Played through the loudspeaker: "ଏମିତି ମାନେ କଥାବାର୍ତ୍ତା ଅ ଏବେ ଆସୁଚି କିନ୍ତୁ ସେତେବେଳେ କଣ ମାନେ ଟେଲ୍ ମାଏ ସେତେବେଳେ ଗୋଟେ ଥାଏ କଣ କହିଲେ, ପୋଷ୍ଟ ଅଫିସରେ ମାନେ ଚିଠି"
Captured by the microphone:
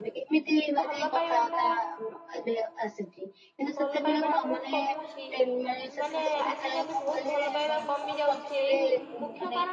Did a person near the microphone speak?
Yes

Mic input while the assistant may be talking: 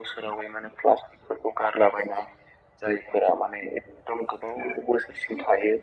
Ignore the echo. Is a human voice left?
No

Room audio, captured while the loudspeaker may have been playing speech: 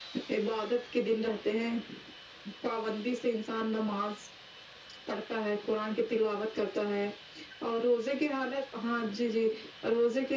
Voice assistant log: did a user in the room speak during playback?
No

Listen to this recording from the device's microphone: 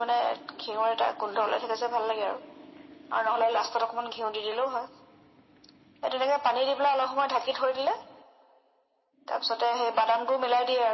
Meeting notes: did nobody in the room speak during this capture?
Yes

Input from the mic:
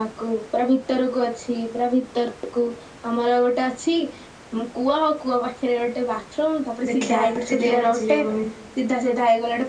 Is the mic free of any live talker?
No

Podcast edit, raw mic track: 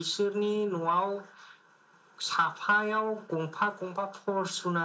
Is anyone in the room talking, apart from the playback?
No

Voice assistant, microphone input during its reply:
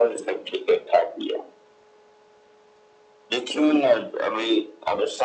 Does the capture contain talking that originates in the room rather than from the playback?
No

